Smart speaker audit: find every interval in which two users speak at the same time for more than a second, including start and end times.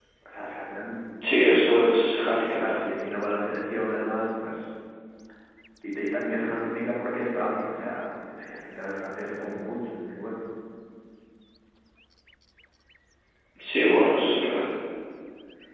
none

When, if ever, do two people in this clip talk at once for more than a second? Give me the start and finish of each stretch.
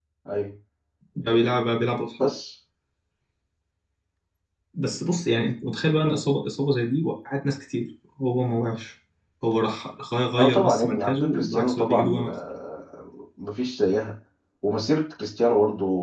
10.4-12.3

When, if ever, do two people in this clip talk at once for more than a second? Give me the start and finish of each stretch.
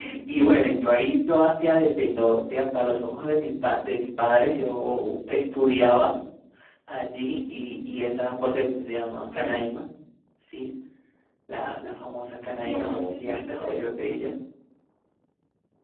12.6-13.8

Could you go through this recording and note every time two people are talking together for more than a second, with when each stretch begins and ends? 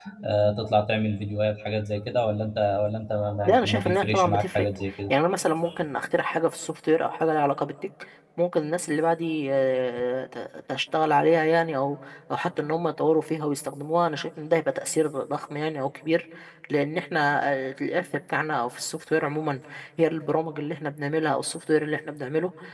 3.5-4.7

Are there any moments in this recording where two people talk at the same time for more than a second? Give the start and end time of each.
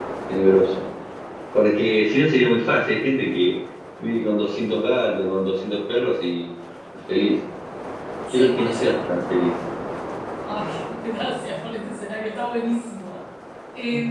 8.3-9.5

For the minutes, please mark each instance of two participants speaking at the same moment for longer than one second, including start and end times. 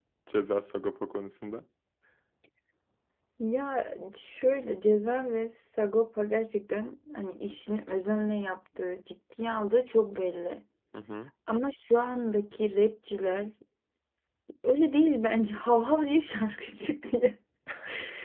none

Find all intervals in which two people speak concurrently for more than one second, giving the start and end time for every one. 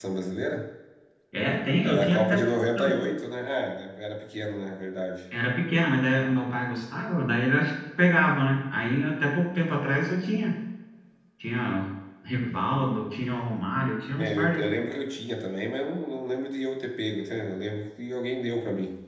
none

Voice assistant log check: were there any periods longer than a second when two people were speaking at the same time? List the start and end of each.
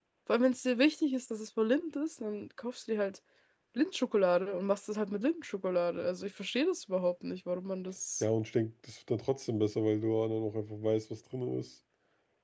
none

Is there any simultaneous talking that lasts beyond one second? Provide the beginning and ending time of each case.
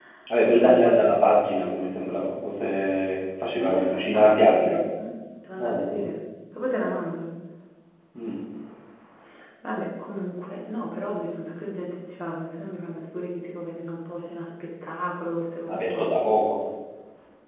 3.6-4.8

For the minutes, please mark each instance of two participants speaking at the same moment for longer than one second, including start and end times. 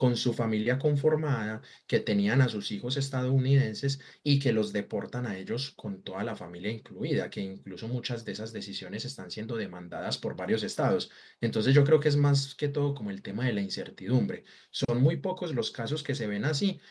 none

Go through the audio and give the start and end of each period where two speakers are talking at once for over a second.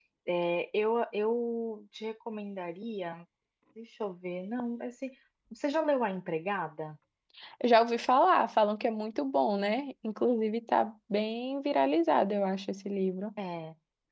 none

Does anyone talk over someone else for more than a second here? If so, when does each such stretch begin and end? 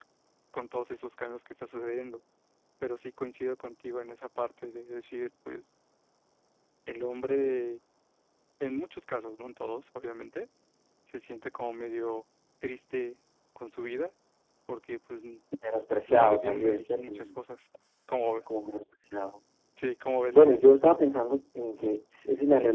16.1-17.4

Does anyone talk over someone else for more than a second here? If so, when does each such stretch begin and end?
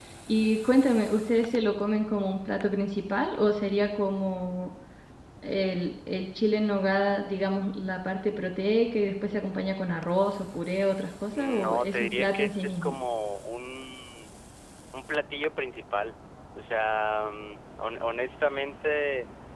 11.3-13.0

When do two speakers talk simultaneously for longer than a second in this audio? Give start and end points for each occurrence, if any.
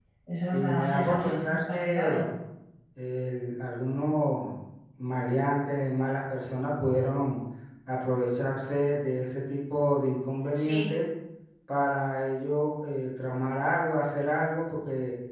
0.5-2.3

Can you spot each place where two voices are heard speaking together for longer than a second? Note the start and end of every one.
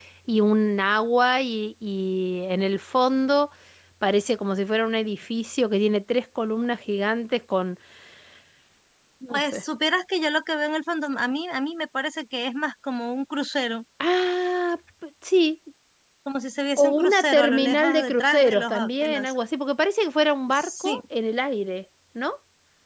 16.8-19.3

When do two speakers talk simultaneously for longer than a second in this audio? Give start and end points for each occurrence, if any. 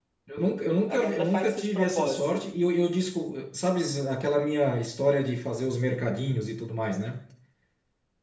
0.9-2.4

